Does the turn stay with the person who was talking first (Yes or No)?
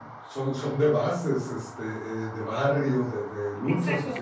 No